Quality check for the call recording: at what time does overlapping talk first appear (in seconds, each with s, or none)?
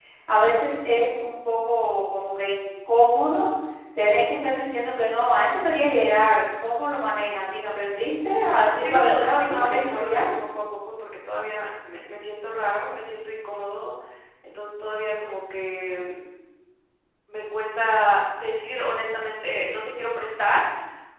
8.8 s